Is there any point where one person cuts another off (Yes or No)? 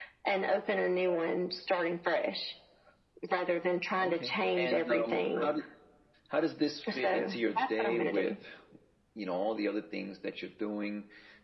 Yes